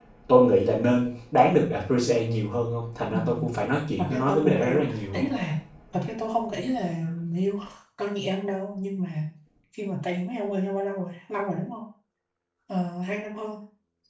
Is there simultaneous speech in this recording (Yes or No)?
Yes